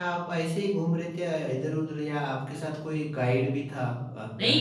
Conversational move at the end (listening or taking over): taking over